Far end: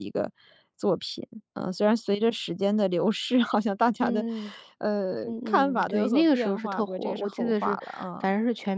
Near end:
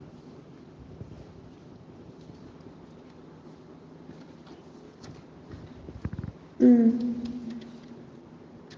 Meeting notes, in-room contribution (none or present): present